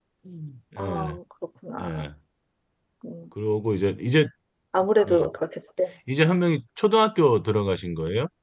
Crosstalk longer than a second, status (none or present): none